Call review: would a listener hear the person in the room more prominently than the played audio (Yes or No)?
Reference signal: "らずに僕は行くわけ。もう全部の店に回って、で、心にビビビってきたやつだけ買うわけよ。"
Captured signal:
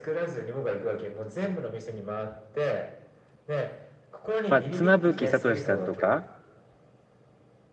Yes